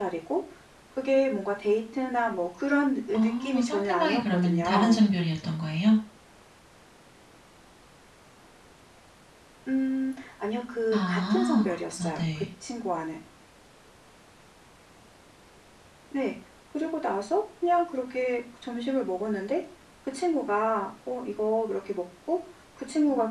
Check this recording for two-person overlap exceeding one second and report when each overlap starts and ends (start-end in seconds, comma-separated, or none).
3.1-5.1, 10.9-12.4